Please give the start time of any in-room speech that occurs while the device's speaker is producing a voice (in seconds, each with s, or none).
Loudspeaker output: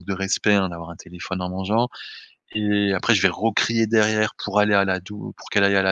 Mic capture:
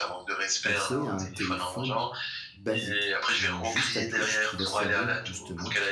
0.6 s